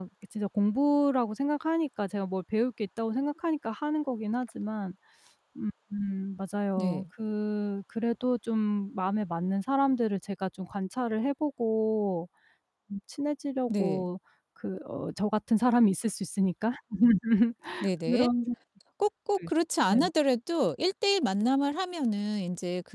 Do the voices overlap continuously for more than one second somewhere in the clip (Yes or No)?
No